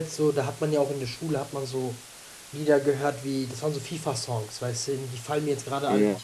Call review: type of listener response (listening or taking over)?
listening